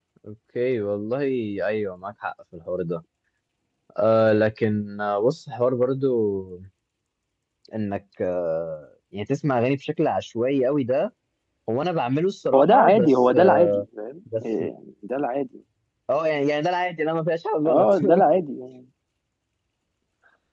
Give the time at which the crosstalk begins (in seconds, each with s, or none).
12.5 s